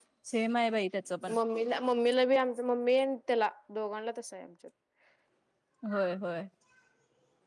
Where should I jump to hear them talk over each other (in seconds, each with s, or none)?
none